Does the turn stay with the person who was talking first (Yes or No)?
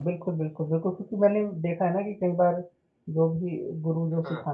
Yes